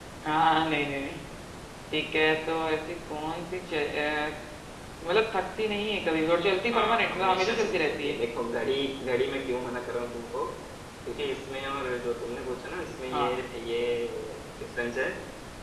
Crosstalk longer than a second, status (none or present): present